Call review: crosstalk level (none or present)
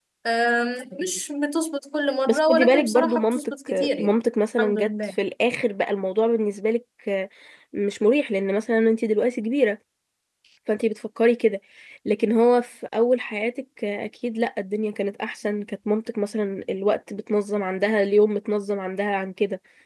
present